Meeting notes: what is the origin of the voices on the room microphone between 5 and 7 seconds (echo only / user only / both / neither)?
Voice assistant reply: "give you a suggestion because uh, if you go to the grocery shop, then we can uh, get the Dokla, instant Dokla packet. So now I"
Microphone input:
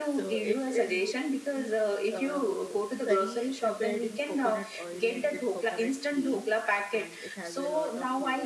both